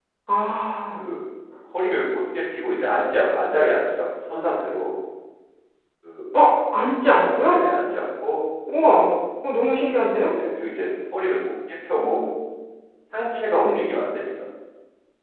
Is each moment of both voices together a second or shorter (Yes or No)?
Yes